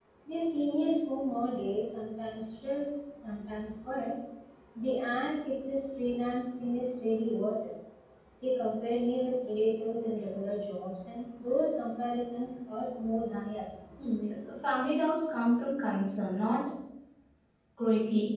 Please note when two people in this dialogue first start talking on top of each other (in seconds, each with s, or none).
none